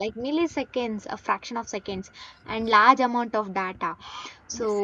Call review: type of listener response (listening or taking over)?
listening